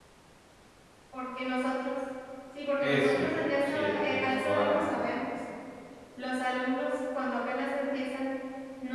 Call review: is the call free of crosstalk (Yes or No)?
No